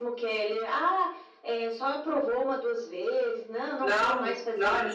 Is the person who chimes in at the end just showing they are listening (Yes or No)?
No